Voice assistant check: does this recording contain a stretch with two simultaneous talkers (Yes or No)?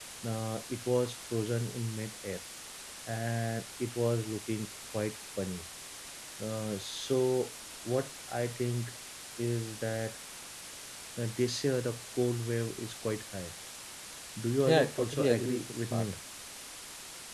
Yes